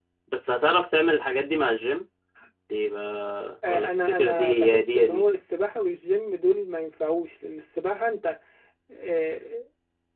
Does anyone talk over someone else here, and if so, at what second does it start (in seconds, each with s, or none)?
3.6 s